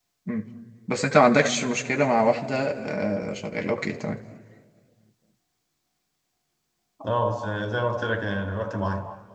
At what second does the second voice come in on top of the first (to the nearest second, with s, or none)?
none